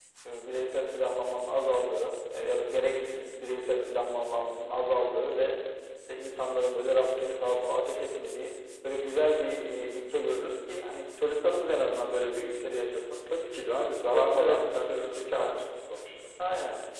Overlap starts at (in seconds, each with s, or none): 14.1 s